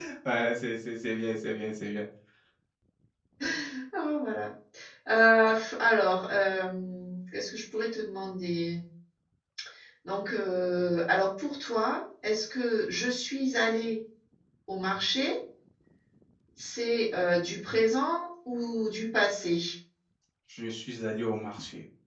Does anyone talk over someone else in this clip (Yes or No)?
No